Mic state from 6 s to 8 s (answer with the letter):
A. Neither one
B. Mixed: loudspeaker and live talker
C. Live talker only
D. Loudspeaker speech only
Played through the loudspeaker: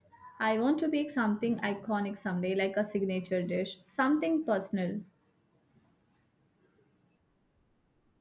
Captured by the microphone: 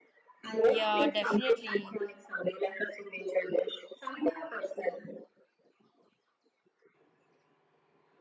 A